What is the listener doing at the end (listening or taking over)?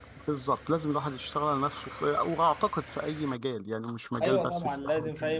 taking over